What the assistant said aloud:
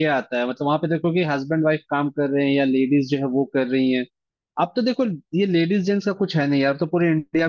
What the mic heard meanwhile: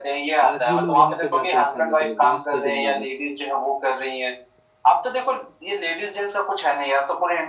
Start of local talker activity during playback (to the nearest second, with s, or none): 0 s